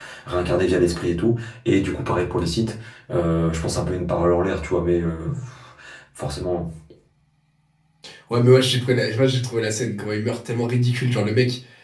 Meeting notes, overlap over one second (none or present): none